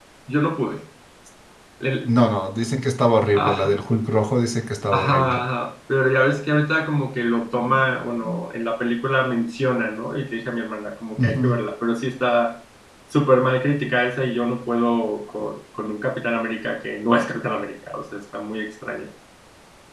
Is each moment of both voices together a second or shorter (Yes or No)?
Yes